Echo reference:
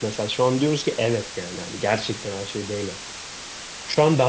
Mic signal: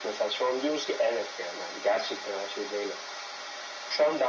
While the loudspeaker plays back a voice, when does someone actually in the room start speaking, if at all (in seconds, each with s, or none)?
none